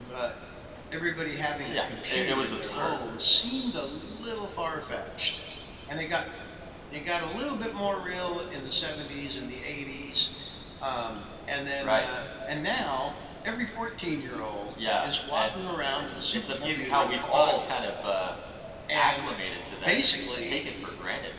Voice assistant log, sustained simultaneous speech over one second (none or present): present